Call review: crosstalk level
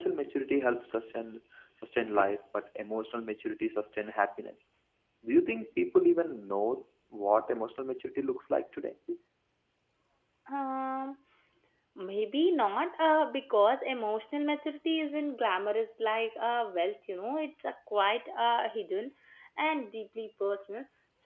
none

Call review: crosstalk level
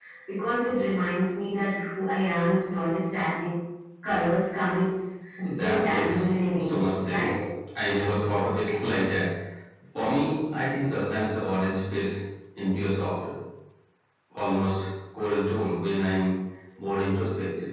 present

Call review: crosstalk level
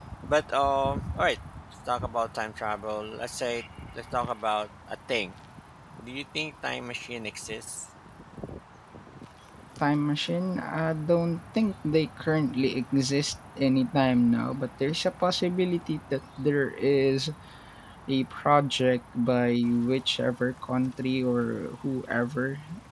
none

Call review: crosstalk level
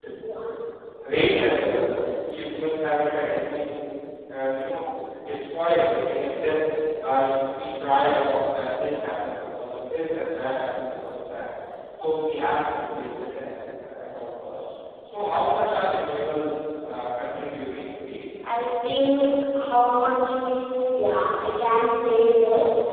none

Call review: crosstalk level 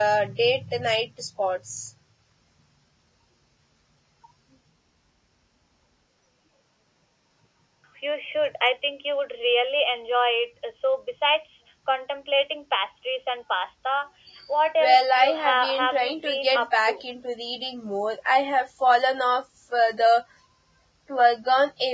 present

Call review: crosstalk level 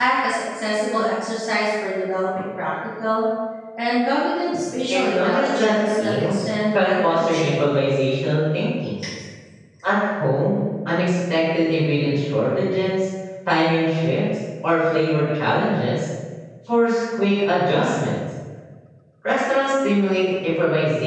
present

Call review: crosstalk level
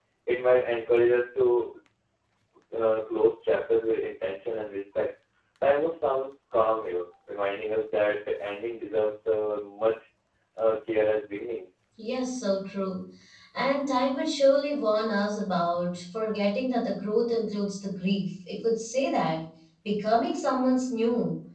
none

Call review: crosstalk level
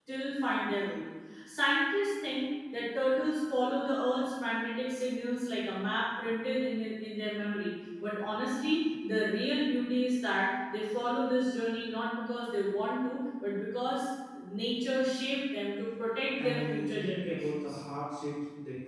present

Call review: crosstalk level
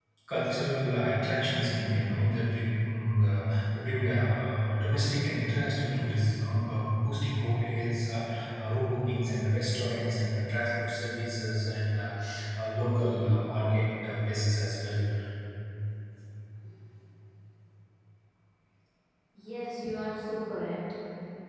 none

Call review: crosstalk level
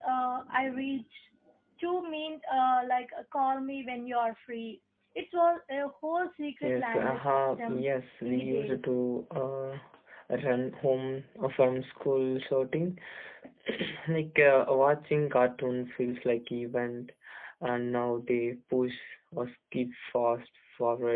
present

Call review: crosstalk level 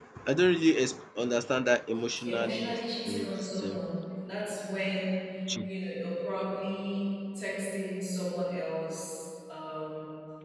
present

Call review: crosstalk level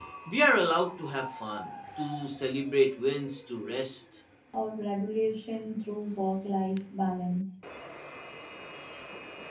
none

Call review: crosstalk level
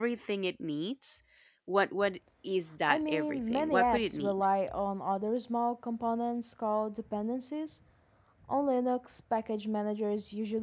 present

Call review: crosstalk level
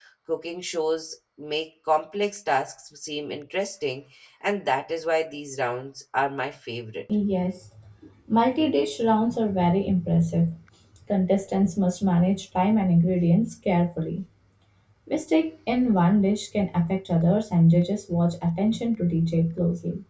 none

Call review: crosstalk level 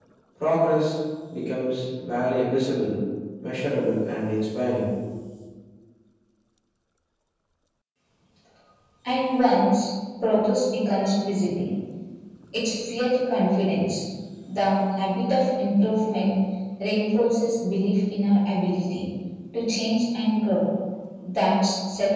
none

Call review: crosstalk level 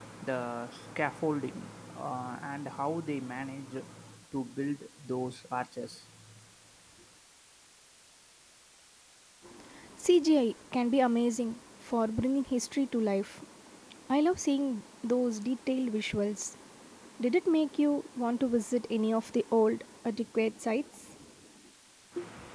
none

